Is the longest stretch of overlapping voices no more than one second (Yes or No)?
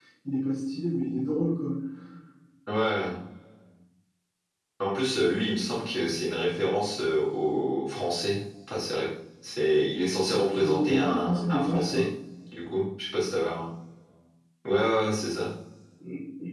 No